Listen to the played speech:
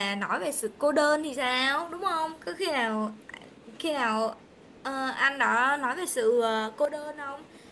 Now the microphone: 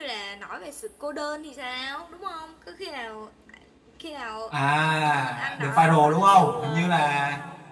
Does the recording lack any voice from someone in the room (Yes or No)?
No